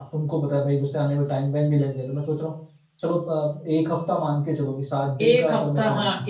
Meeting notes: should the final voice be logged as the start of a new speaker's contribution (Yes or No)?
Yes